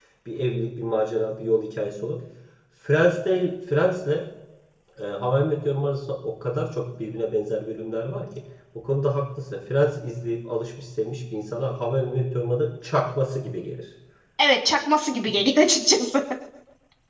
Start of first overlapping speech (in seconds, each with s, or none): none